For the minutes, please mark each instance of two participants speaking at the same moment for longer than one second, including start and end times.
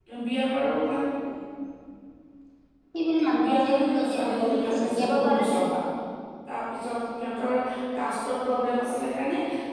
3.5-5.6

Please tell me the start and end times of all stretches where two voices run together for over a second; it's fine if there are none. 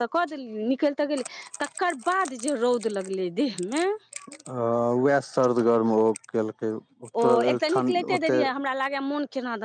7.2-8.5

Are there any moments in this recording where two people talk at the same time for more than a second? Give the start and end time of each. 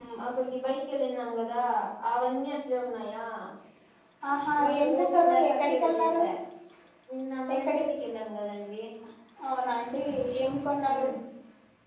4.6-6.2

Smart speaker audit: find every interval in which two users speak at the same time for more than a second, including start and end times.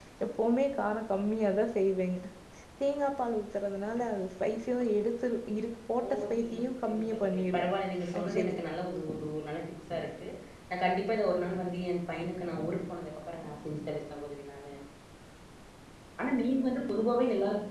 6.1-7.6

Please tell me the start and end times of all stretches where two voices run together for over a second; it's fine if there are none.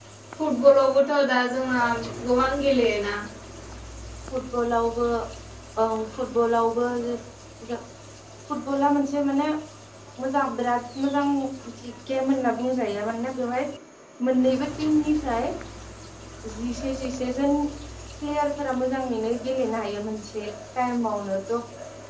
none

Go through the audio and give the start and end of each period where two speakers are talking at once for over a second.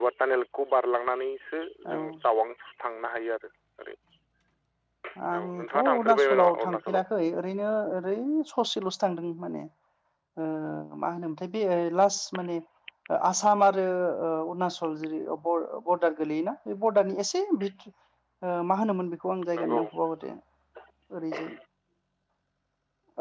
5.4-7.1

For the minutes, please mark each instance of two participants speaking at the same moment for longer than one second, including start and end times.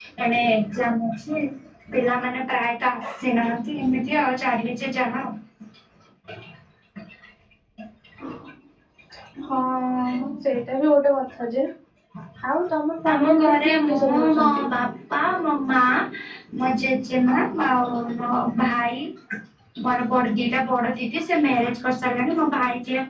13.1-14.7

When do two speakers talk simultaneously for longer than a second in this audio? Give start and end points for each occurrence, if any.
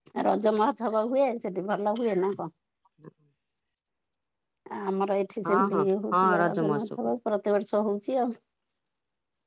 5.4-6.9

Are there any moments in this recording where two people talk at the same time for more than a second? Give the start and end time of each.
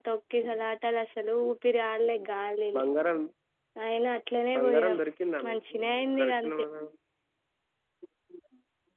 none

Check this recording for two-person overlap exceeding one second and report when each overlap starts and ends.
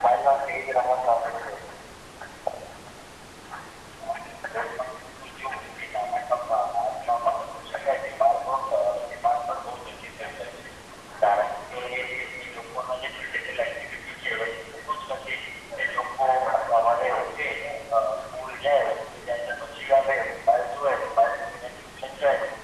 none

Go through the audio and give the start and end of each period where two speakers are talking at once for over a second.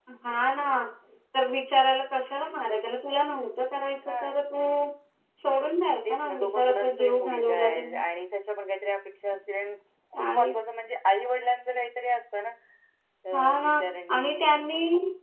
6.0-8.0

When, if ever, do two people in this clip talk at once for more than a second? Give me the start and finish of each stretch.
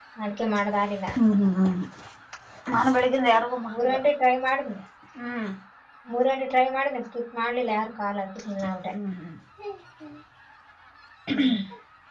none

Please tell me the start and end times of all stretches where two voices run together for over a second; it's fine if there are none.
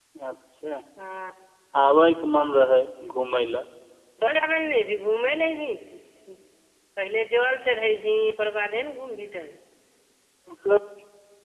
none

